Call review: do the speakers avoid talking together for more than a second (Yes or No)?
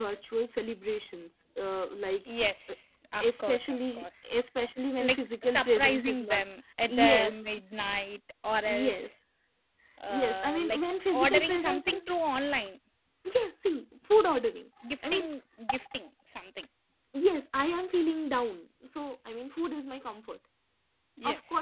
No